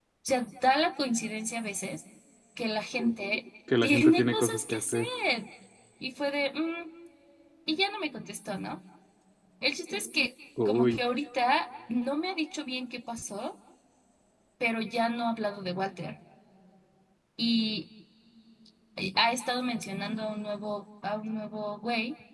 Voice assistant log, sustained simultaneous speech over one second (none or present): present